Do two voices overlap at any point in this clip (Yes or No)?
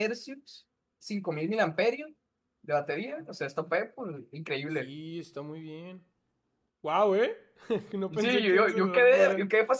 Yes